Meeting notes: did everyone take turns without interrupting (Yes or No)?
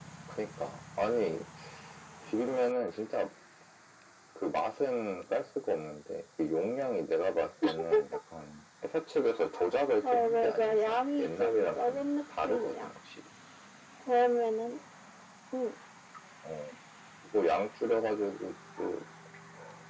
No